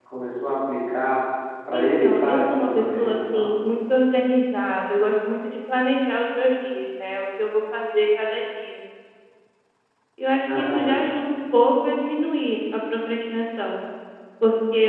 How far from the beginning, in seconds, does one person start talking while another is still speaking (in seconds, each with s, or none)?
1.7 s